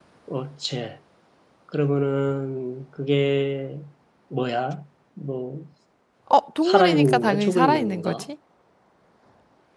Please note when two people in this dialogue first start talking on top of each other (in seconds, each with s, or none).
6.6 s